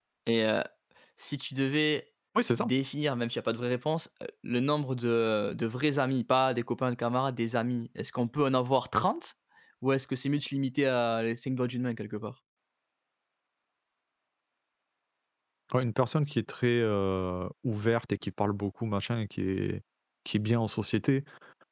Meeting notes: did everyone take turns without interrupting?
Yes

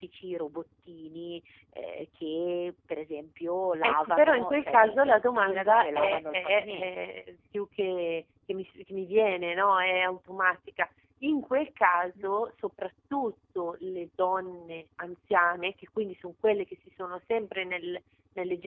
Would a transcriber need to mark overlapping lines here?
Yes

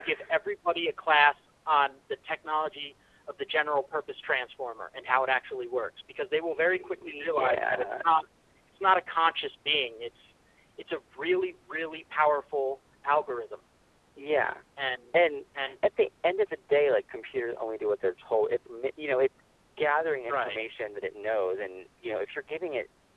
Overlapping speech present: Yes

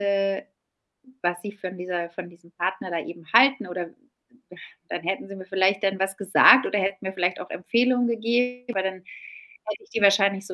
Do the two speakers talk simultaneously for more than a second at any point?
No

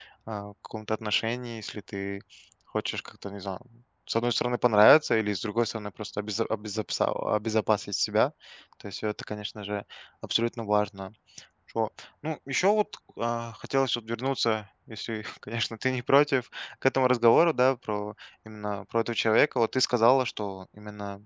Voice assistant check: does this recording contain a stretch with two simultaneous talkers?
No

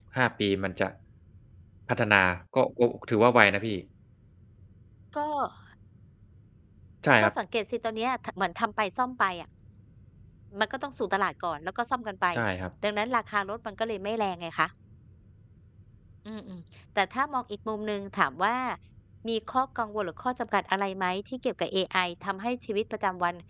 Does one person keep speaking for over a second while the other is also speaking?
No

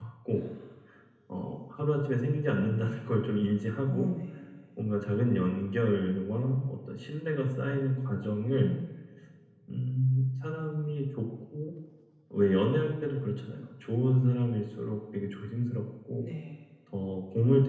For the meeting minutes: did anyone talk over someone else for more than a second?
No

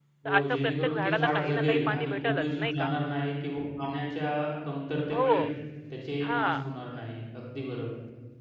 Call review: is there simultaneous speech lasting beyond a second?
Yes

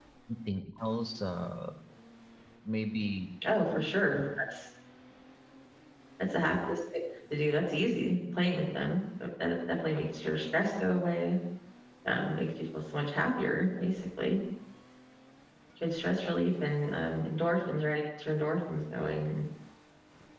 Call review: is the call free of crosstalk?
Yes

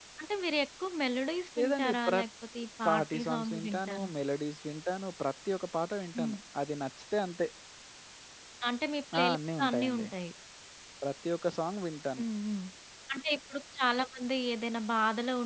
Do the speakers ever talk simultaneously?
Yes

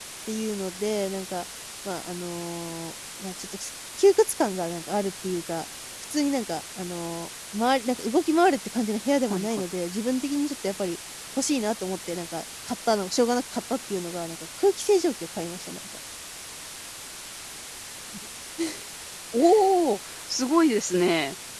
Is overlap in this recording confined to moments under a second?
Yes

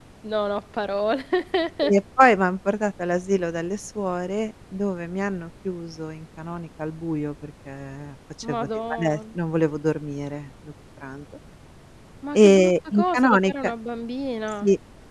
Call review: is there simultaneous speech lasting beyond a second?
Yes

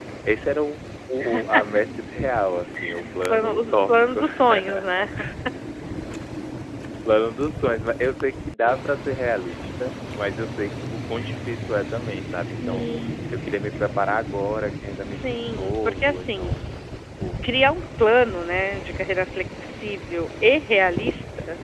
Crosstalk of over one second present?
Yes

